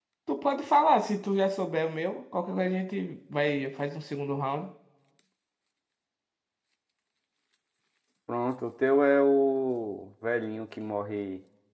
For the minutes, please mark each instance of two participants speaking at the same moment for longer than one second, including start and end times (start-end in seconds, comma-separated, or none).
none